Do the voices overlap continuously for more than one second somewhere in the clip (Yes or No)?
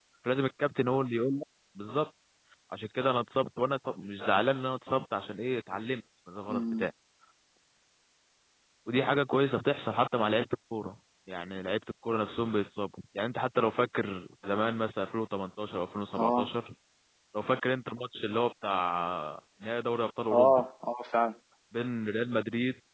No